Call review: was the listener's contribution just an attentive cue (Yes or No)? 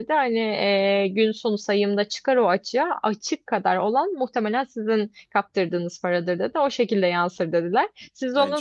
Yes